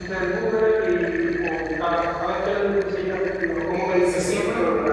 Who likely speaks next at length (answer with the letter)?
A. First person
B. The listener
B